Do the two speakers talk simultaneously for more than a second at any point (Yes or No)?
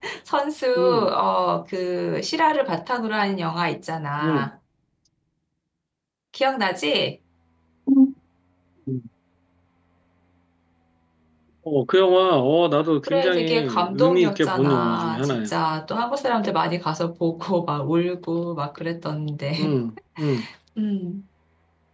Yes